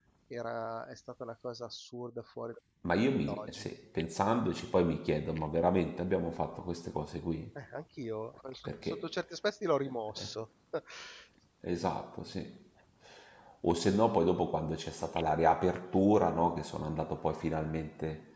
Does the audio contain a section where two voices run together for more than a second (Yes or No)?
No